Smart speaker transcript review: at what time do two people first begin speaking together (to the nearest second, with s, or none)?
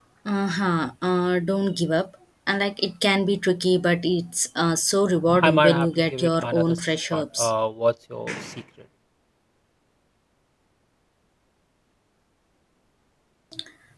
5 s